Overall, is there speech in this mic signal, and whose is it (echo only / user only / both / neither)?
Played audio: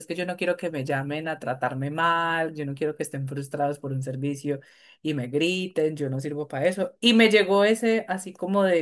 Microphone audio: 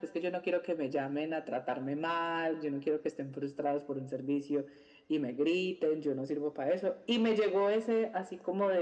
echo only